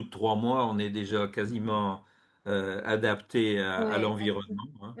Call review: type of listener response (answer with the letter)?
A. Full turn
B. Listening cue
A